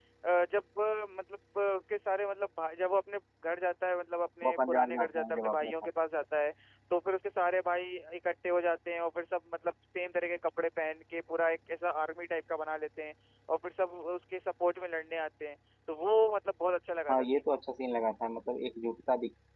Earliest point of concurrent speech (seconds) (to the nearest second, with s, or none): 4 s